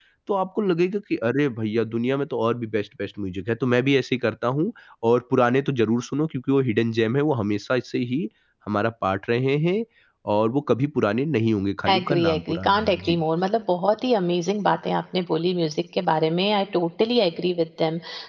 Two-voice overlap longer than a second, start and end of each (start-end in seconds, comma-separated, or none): 11.9-13.2